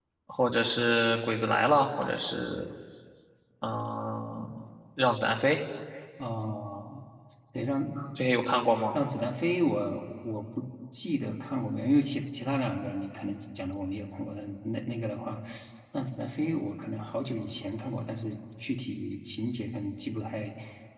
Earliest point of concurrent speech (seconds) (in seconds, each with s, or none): none